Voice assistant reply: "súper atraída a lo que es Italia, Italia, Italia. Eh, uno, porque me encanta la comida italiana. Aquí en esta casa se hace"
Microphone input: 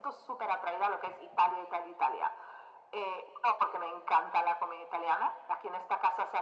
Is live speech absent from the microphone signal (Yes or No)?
Yes